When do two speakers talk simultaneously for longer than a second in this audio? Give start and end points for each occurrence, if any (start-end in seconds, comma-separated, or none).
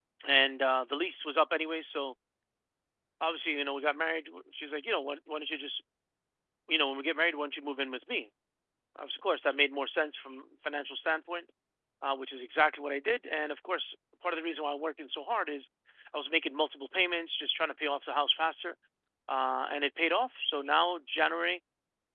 none